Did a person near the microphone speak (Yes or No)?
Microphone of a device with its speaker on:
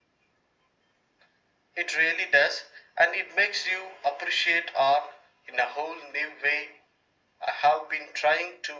No